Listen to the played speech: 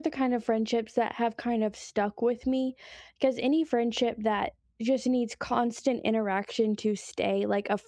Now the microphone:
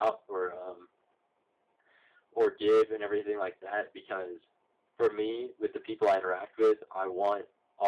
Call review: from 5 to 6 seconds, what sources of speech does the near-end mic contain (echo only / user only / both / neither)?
user only